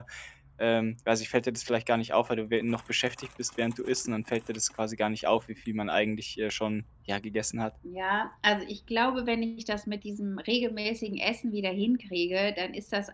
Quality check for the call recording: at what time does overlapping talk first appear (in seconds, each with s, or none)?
none